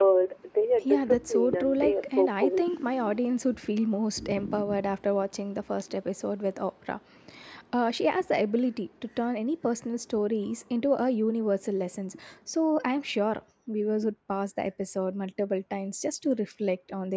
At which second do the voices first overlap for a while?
0.8 s

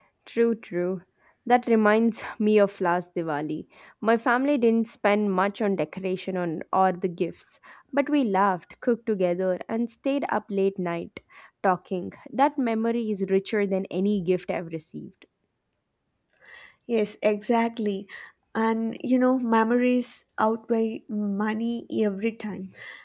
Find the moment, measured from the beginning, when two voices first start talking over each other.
none

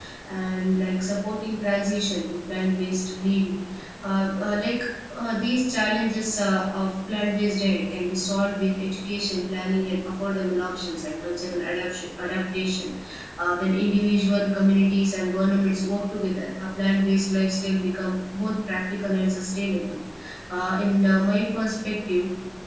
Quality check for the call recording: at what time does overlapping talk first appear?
none

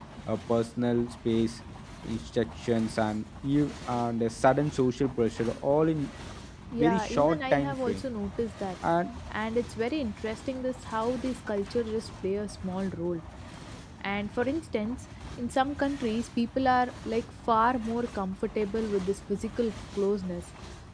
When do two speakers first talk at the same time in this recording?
6.8 s

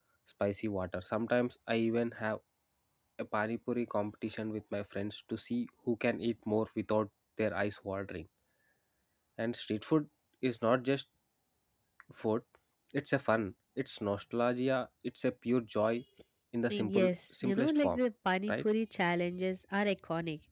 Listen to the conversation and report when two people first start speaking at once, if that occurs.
16.7 s

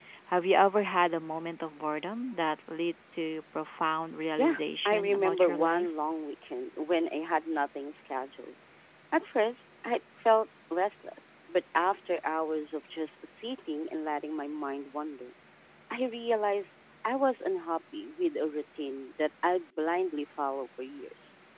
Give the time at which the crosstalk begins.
4.4 s

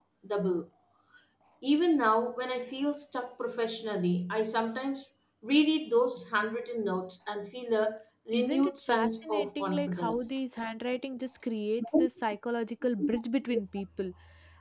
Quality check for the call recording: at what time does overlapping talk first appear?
8.3 s

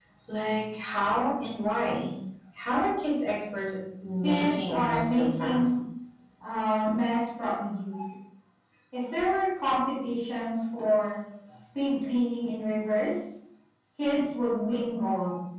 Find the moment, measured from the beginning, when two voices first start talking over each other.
4.2 s

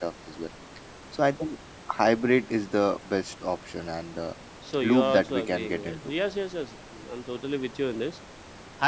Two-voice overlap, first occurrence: 4.8 s

